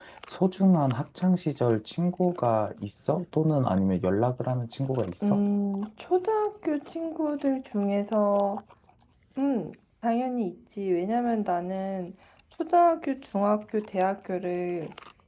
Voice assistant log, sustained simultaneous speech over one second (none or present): none